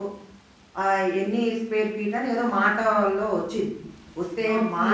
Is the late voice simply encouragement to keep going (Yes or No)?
Yes